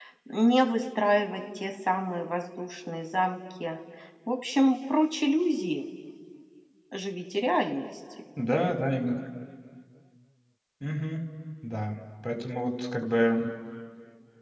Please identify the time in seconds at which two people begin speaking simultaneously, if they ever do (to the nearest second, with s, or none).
none